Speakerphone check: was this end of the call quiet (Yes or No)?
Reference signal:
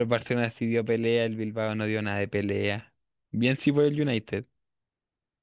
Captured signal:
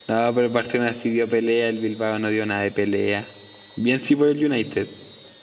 Yes